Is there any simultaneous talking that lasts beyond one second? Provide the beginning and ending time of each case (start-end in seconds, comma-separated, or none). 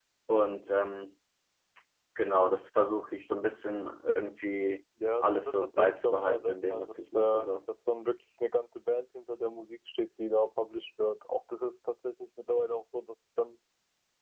5.2-7.5